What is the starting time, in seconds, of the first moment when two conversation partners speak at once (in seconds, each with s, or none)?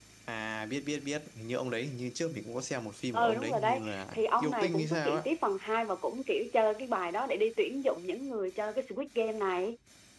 3.1 s